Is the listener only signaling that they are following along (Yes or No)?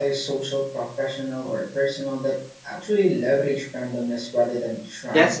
No